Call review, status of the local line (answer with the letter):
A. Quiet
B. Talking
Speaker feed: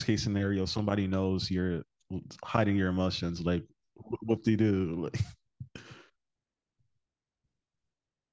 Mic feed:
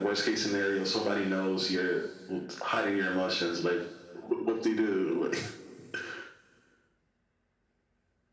A